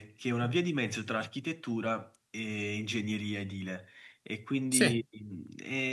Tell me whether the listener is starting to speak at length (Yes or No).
No